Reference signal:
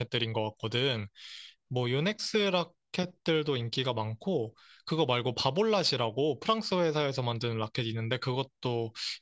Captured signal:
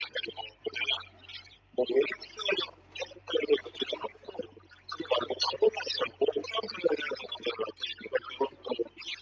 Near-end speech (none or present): none